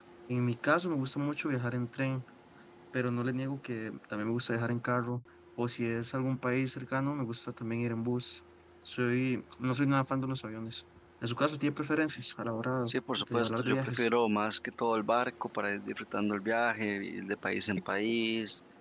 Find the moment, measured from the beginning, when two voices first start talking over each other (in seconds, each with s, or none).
12.8 s